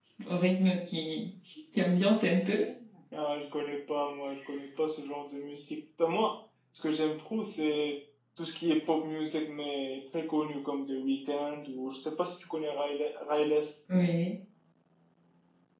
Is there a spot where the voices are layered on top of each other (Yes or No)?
No